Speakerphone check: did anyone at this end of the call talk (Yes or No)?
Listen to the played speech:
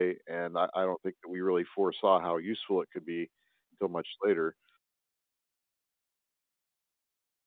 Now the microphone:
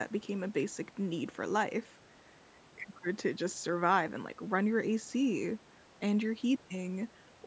Yes